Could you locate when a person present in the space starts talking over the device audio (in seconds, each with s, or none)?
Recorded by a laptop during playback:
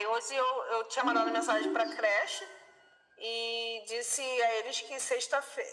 1.0 s